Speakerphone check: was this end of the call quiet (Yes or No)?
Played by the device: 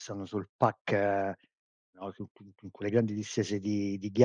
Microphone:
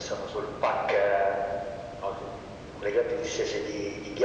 Yes